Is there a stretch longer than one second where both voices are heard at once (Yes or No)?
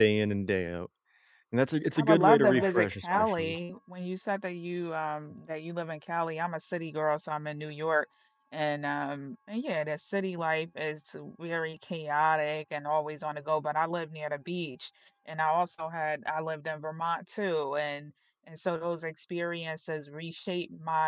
Yes